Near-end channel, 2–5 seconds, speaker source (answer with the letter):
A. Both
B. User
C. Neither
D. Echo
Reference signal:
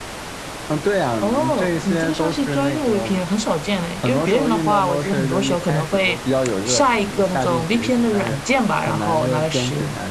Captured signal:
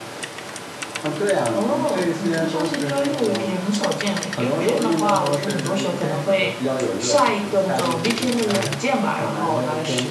D